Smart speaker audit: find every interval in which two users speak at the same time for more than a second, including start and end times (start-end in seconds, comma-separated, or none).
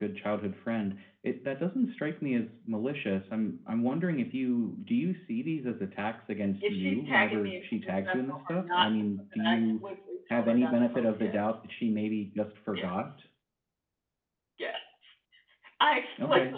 6.6-8.9, 10.3-11.6